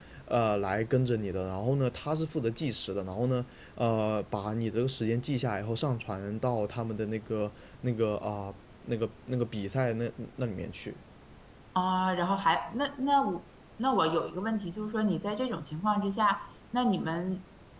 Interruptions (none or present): none